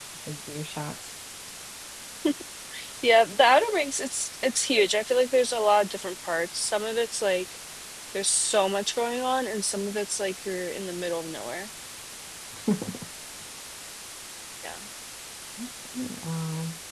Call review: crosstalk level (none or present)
none